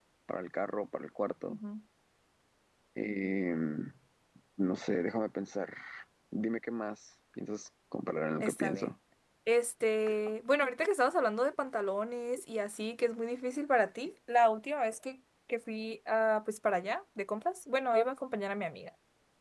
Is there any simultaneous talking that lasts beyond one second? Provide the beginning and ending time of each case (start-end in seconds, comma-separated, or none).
none